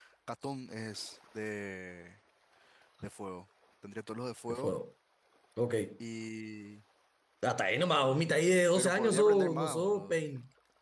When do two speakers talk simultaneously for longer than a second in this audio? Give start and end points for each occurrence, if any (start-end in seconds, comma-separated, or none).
8.8-10.2